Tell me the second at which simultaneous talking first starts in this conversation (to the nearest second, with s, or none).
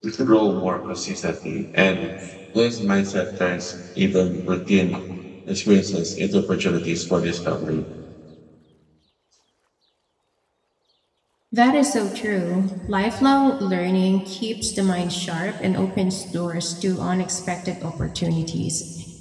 none